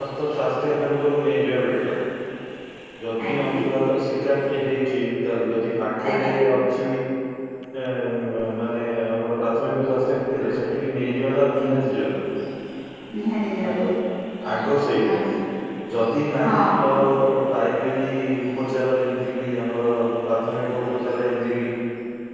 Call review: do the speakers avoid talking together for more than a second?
Yes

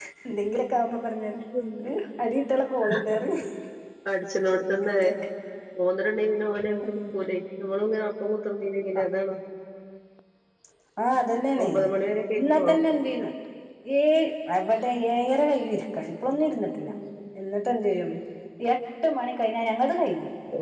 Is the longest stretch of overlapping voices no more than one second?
Yes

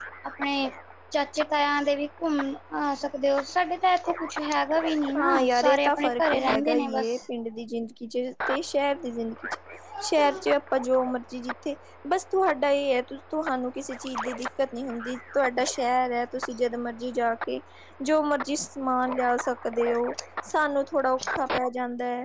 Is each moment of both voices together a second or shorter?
No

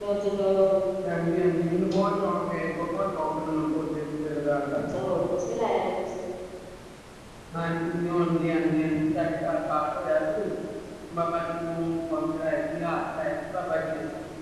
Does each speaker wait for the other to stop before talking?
Yes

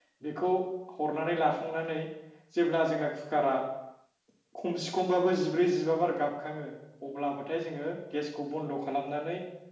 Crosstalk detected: No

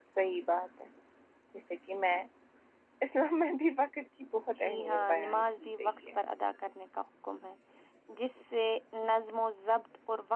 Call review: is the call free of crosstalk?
No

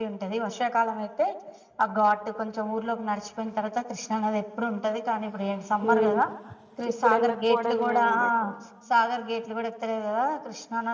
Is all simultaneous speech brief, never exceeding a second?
No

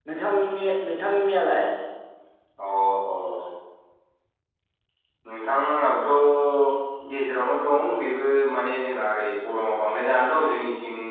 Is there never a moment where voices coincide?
Yes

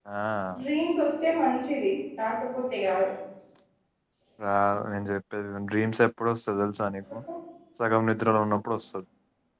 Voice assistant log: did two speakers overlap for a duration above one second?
No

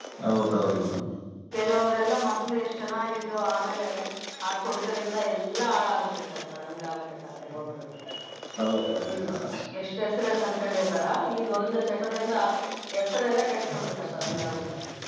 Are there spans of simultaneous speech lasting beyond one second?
No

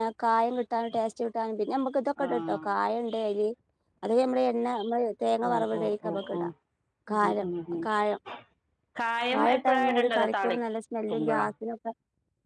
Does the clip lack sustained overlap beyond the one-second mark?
No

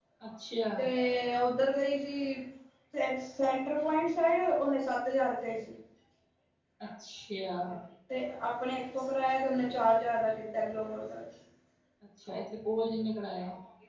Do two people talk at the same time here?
No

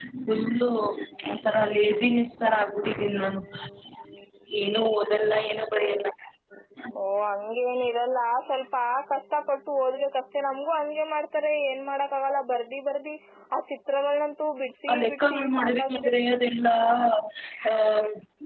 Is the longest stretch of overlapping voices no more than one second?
No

